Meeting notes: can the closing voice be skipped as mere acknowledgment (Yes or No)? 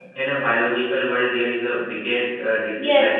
No